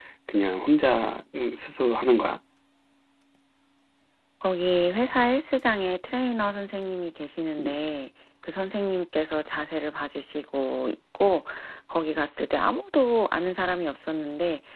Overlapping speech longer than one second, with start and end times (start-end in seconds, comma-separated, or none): none